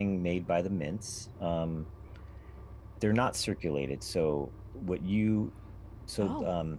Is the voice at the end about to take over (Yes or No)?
No